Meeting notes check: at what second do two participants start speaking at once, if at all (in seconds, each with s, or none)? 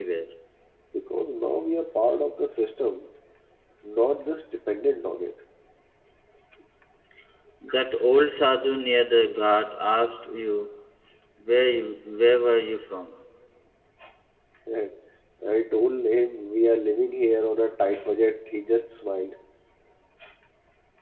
none